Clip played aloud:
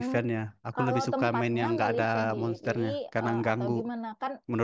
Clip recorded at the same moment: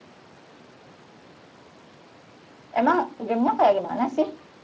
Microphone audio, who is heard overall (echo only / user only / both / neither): user only